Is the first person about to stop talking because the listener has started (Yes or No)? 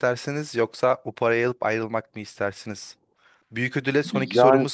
No